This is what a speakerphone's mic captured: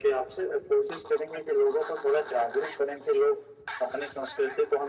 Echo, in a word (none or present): present